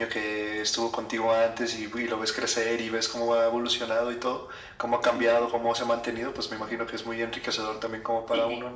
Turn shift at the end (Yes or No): Yes